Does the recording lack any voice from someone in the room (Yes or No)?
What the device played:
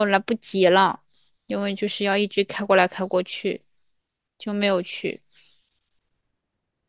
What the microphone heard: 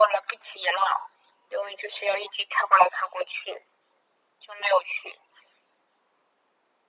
Yes